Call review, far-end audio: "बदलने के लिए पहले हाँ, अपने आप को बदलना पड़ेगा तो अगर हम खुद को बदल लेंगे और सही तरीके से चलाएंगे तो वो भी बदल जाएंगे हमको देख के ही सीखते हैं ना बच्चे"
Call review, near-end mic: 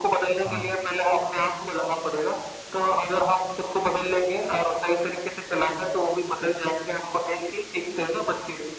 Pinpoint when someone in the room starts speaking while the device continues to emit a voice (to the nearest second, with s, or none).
0 s